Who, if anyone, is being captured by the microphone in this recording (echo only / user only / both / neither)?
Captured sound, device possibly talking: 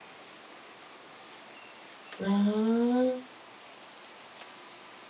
user only